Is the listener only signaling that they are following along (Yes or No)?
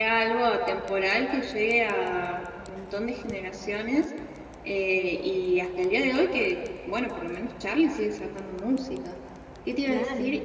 Yes